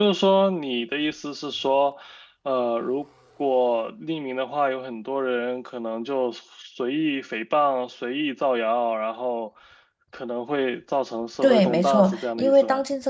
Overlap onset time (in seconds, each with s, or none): 11.4 s